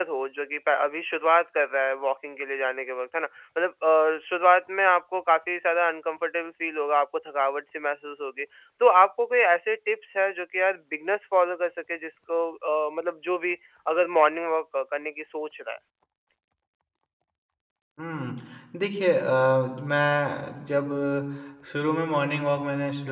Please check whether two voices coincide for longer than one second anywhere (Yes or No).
No